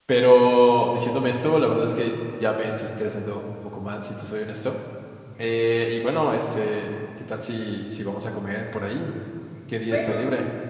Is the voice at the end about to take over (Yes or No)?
Yes